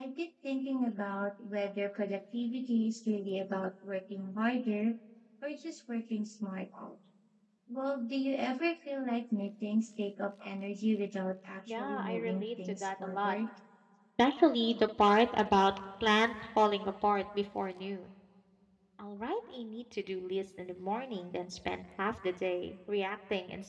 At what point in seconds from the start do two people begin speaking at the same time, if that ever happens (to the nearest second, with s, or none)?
12 s